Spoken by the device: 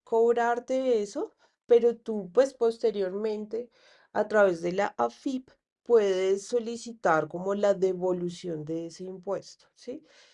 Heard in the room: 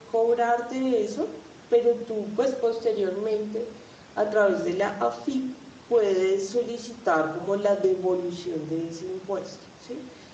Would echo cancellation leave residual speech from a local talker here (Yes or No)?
No